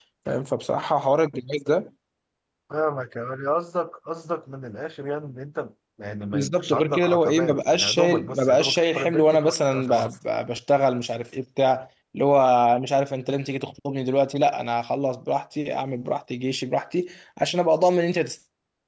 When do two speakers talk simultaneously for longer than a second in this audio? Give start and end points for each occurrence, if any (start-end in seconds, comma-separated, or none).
6.3-10.1